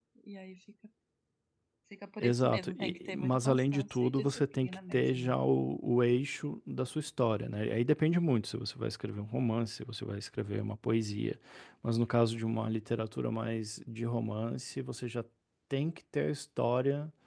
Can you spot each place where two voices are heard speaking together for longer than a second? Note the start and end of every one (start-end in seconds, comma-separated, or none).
2.2-5.4